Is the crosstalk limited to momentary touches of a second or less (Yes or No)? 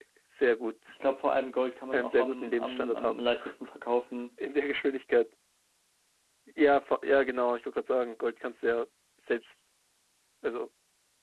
No